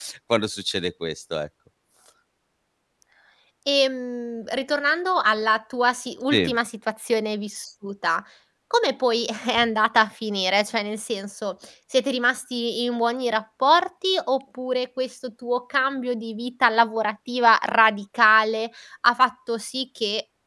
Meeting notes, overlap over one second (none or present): none